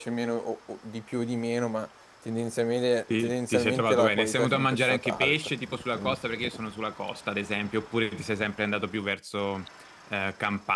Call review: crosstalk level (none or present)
present